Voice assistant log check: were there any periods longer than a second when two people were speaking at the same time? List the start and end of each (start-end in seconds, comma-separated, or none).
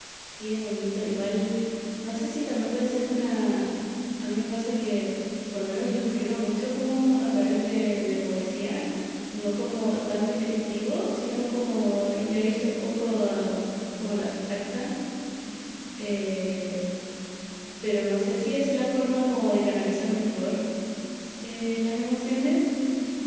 none